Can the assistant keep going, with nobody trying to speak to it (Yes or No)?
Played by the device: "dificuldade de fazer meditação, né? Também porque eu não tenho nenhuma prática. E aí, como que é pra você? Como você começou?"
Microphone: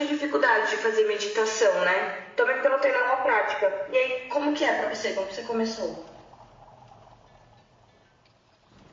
Yes